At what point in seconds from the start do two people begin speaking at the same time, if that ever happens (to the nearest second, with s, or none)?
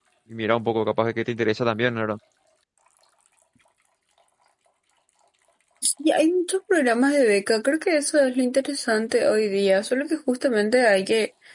none